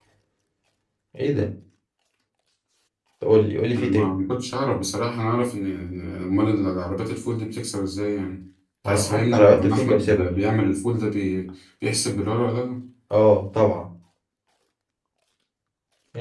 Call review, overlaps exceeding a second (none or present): present